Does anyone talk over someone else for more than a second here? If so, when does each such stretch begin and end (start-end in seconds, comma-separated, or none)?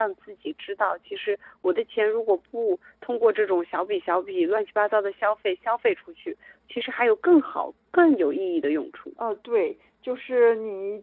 none